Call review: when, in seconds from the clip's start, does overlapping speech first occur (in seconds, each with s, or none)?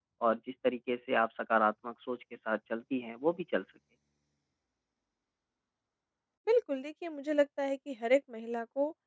none